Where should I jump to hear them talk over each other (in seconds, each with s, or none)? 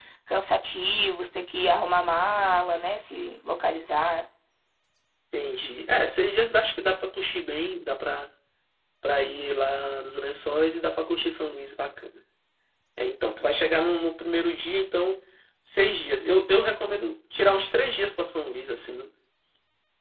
none